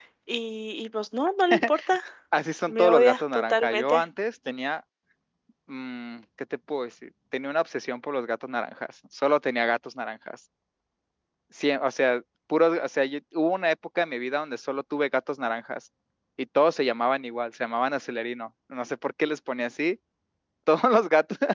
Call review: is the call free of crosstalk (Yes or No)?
No